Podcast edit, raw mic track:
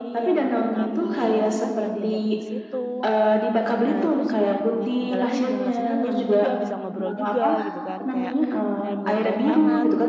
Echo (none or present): present